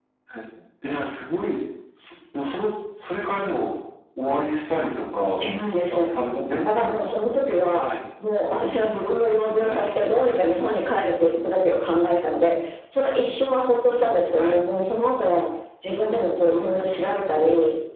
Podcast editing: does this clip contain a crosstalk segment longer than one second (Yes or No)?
No